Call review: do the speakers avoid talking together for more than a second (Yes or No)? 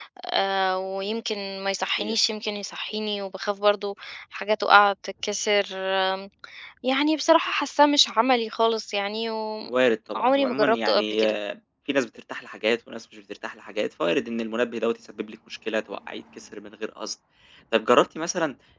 No